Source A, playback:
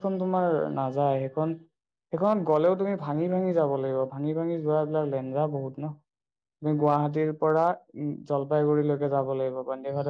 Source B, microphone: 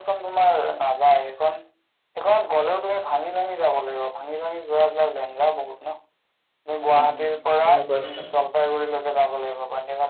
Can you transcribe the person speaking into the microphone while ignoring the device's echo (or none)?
উম, কেনেকুৱা সেইখন?